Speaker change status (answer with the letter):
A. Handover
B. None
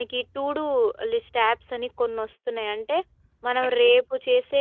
B